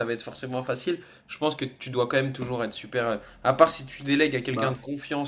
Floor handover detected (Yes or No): No